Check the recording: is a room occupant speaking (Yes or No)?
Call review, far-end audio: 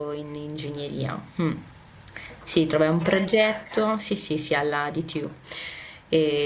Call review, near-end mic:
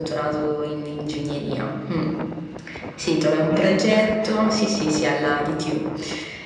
No